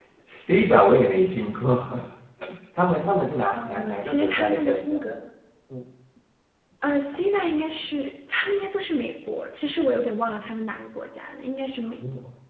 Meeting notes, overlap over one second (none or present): present